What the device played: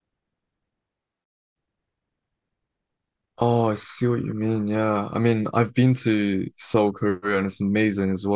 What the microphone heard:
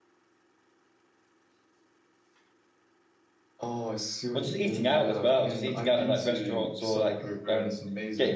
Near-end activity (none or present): present